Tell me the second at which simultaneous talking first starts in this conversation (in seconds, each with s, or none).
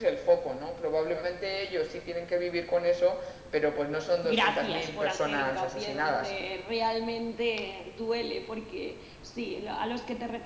4.2 s